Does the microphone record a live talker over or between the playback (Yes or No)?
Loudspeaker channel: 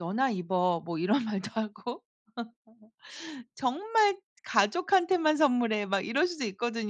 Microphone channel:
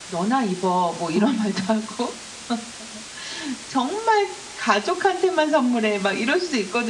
Yes